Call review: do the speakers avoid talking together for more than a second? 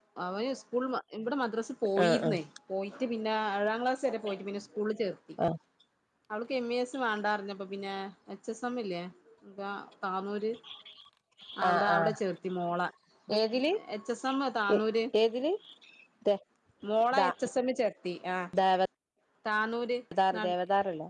Yes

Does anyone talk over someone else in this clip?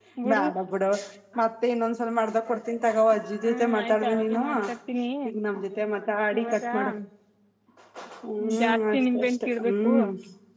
Yes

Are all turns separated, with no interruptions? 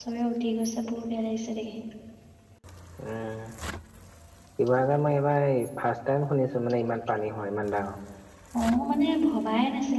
Yes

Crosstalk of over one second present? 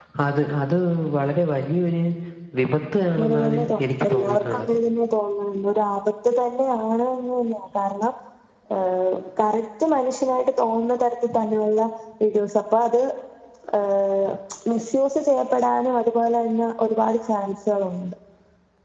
Yes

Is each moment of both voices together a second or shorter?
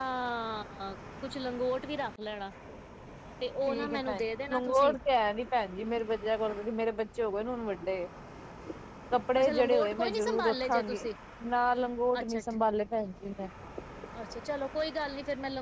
No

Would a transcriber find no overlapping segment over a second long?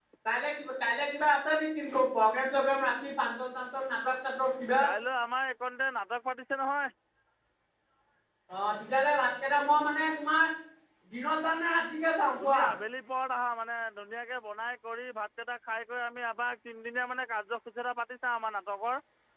Yes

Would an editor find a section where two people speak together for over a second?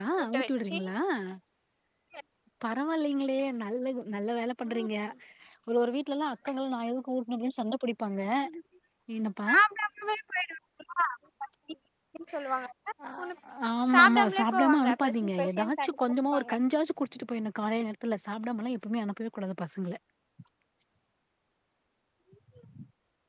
Yes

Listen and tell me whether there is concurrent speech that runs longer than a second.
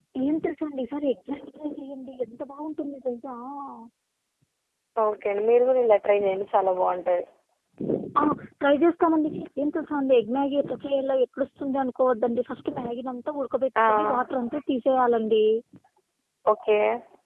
No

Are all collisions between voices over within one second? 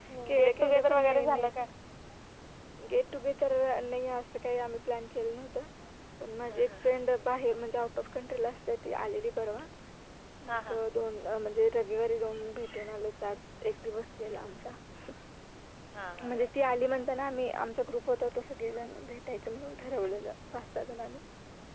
No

